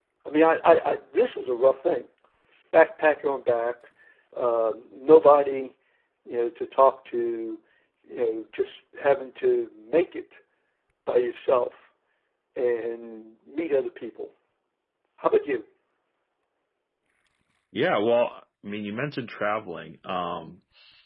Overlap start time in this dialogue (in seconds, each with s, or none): none